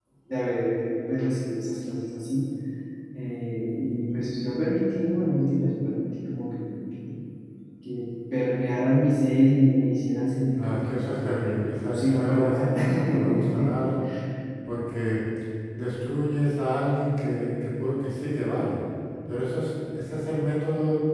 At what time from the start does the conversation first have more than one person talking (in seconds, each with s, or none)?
10.6 s